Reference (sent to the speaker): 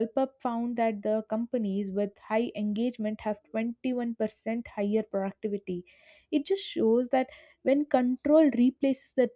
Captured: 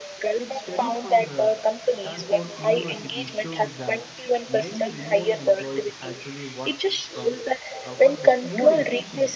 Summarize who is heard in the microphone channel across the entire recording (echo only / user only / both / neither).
both